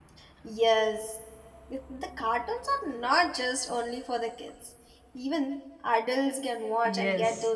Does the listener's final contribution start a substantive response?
Yes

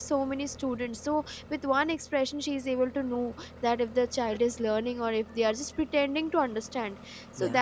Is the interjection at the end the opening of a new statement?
No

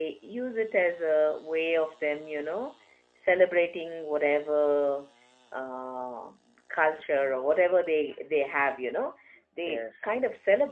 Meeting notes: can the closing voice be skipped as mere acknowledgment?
Yes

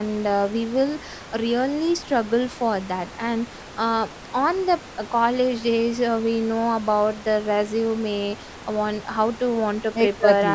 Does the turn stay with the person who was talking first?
Yes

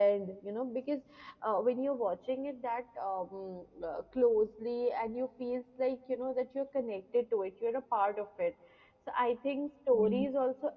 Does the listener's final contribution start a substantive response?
No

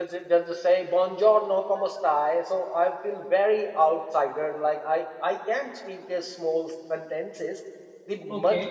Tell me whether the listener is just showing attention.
Yes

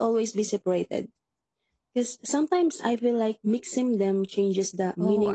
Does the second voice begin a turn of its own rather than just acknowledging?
Yes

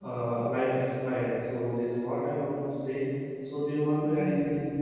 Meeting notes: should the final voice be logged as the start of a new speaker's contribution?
Yes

